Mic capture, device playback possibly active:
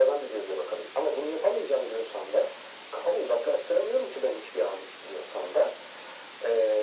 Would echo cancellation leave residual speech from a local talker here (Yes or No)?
No